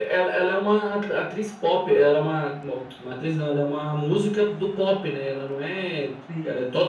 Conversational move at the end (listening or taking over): listening